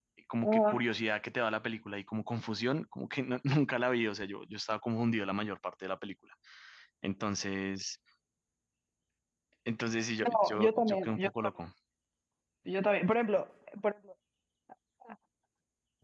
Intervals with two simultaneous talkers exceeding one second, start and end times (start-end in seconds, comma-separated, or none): 10.2-11.5